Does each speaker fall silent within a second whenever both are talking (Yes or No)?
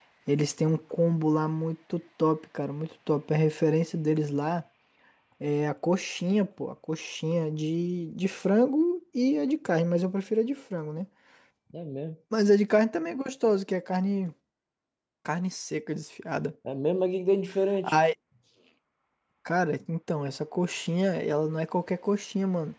Yes